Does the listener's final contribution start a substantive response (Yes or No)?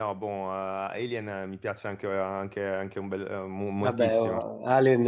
Yes